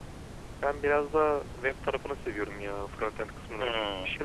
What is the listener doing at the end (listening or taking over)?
listening